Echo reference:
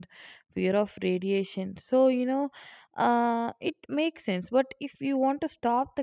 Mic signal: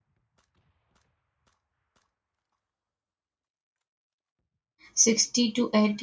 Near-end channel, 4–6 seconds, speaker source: user only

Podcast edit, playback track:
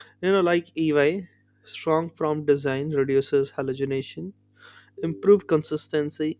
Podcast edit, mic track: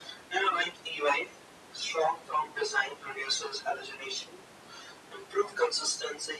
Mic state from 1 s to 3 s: echo only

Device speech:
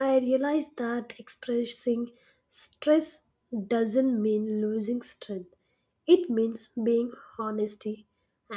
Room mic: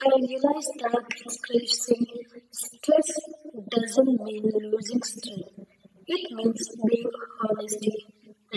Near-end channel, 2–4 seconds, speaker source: echo only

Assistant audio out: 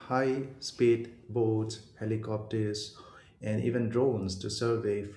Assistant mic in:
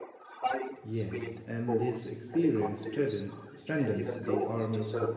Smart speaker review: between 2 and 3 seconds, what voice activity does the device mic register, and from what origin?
both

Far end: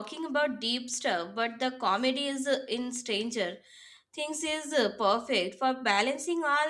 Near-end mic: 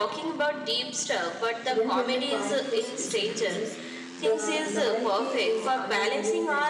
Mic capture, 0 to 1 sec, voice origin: echo only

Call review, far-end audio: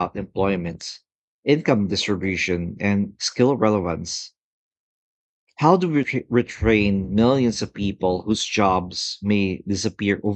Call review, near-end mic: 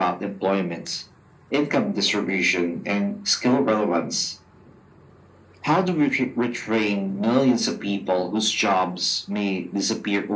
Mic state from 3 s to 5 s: echo only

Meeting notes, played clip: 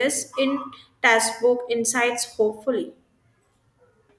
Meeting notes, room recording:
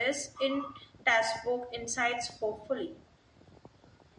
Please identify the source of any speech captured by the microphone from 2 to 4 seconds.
echo only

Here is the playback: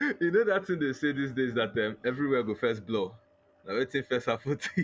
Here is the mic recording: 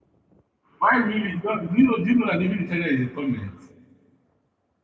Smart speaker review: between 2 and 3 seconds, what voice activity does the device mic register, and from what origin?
user only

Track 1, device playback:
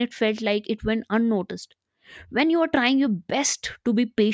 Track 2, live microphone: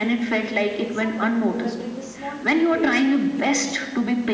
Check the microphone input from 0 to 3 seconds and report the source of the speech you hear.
both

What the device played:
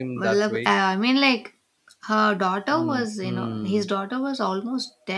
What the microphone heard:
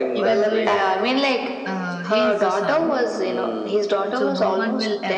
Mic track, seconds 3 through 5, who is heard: both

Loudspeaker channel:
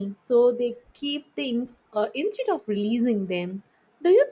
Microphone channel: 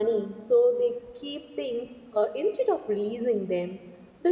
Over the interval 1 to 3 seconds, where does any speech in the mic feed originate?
echo only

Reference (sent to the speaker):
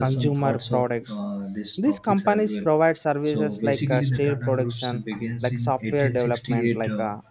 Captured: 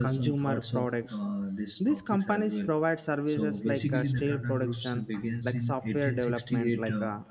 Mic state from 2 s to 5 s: echo only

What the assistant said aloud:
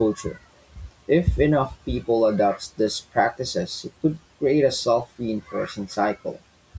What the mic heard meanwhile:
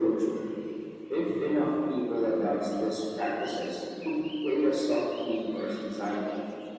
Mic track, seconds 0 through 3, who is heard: echo only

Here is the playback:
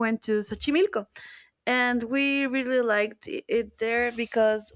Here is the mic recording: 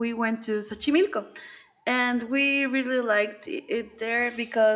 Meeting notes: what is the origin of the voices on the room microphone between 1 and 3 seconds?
echo only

